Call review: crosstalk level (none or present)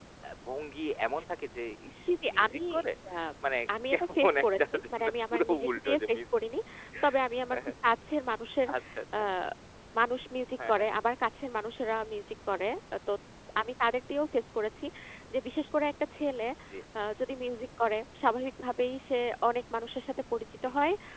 present